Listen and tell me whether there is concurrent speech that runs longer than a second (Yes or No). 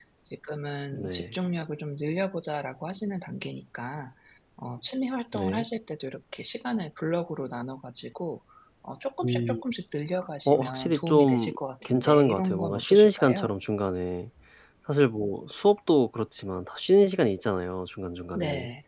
Yes